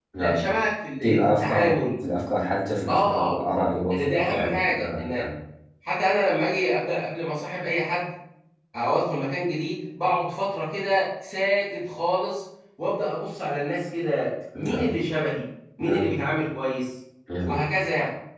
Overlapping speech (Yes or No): Yes